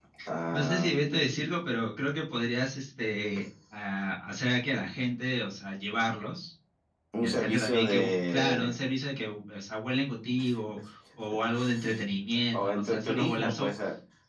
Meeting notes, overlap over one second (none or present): present